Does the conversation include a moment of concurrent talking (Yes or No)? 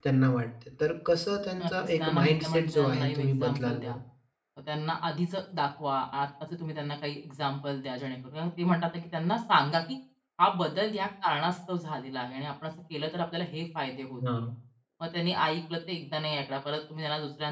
Yes